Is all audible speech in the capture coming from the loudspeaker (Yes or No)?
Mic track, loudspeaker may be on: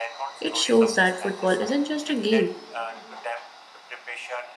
No